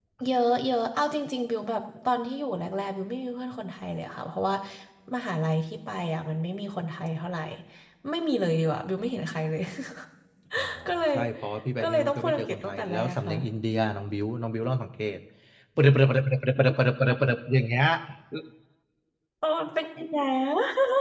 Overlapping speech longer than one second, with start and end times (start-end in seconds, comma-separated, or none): 11.8-13.3